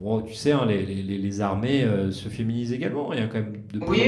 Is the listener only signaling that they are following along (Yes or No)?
No